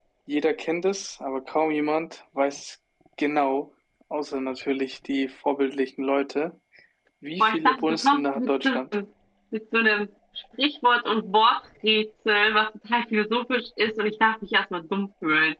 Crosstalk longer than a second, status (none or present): present